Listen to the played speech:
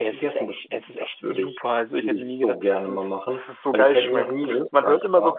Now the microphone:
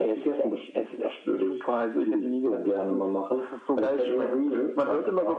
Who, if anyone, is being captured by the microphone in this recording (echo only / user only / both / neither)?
echo only